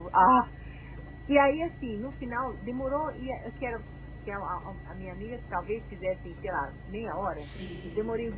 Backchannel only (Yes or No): Yes